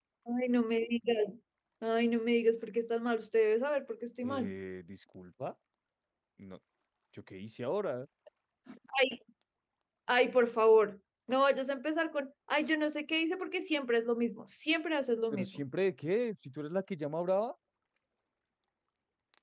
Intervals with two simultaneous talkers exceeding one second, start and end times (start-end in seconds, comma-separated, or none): none